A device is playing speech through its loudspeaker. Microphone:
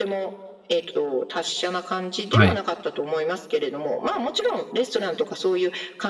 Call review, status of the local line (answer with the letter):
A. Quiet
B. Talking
B